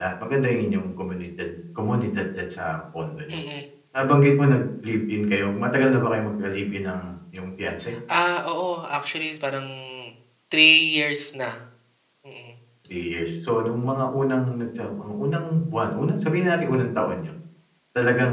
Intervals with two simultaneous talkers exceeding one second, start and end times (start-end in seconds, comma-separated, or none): none